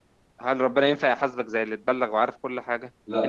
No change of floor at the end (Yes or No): Yes